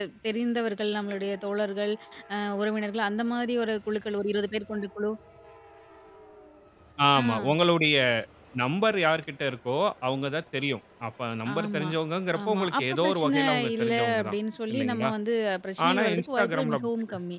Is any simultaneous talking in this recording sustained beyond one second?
Yes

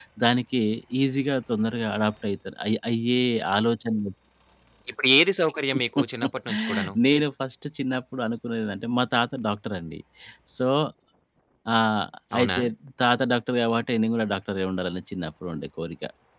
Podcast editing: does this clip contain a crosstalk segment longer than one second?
No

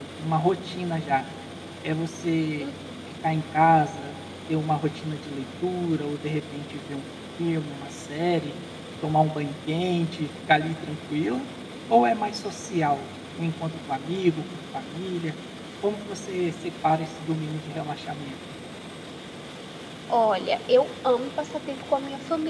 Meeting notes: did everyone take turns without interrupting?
Yes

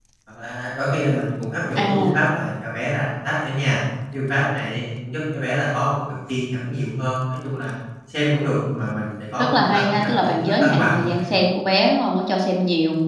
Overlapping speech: Yes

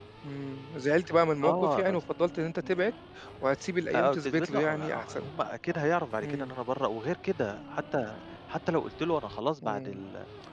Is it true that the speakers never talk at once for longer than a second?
No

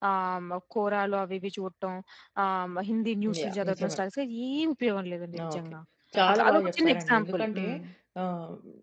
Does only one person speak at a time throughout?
No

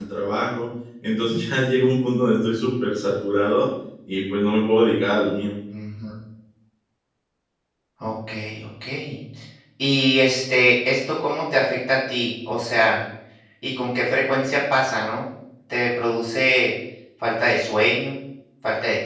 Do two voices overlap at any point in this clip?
No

